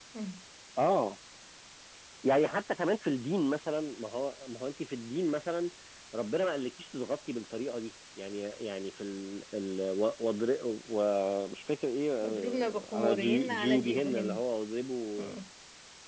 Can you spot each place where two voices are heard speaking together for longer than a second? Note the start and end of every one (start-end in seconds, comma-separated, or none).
12.2-14.4